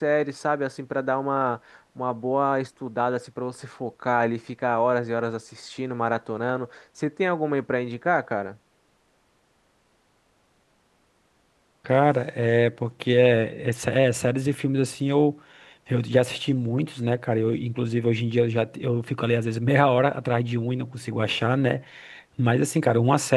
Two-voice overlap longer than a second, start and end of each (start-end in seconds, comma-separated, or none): none